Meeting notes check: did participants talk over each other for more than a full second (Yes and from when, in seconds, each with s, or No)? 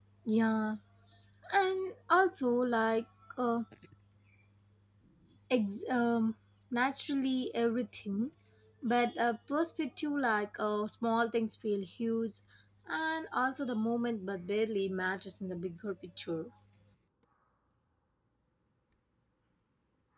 No